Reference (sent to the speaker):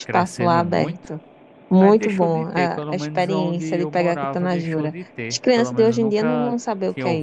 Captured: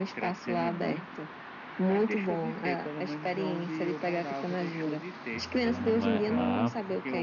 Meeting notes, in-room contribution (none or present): present